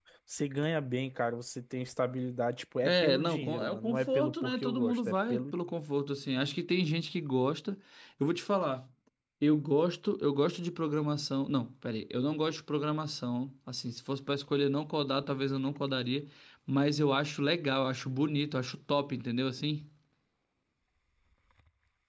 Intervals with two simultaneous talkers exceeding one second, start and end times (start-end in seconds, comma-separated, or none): 2.8-5.5